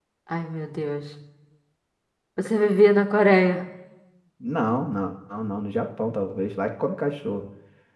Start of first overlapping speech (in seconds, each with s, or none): none